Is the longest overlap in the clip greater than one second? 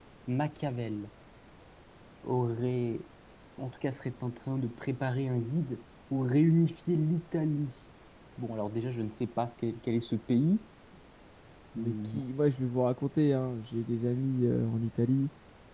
No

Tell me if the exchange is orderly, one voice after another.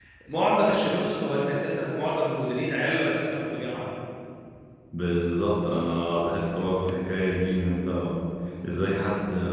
Yes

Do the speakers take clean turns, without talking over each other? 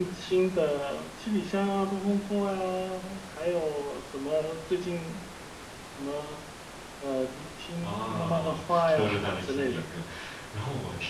No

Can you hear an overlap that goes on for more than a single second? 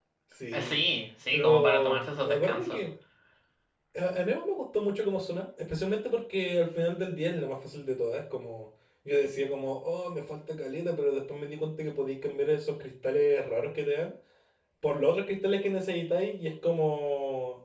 Yes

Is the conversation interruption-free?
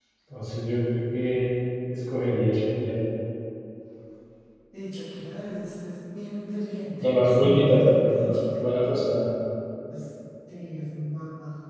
No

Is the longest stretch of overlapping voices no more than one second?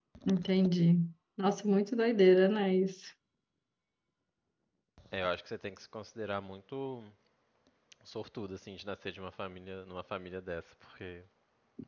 Yes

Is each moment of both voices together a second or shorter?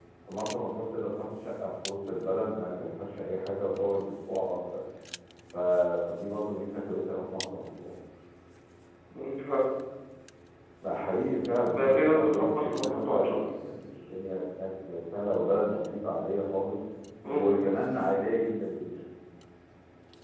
No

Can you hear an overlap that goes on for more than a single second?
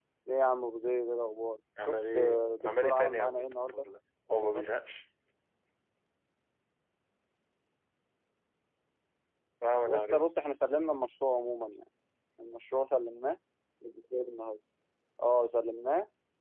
Yes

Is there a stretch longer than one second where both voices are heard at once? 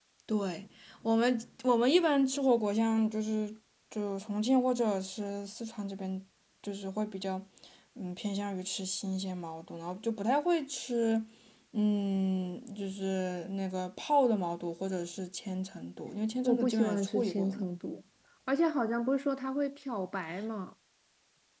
Yes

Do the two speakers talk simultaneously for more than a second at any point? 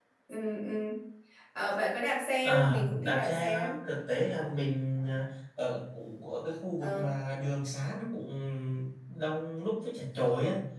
Yes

